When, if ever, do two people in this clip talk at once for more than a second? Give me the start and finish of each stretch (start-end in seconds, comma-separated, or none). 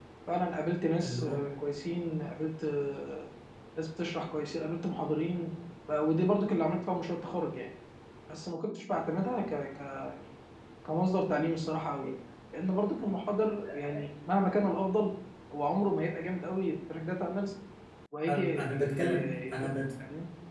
18.3-19.8